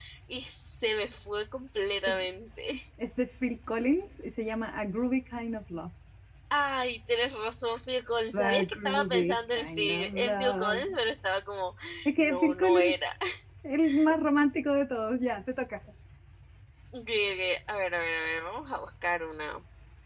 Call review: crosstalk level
present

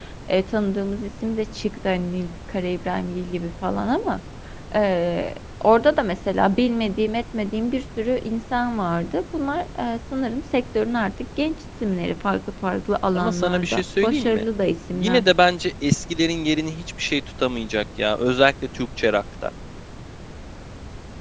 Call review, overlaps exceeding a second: present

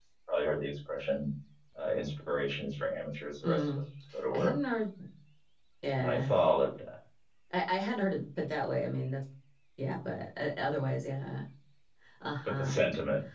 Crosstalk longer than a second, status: none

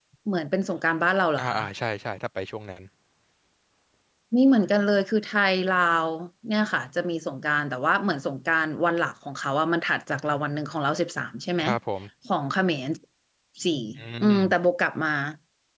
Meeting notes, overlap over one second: none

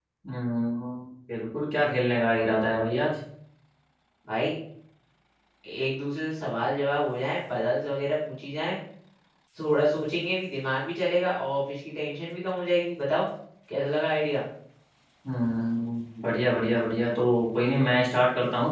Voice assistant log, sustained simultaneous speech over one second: none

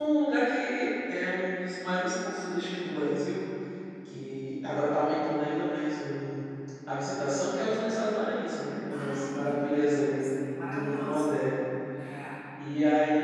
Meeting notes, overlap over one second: present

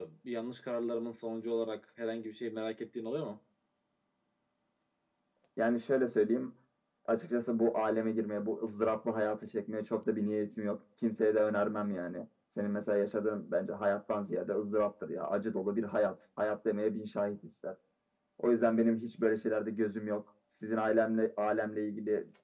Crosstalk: none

